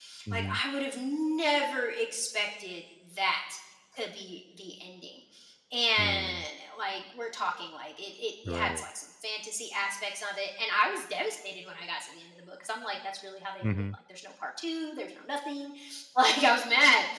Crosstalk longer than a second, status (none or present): none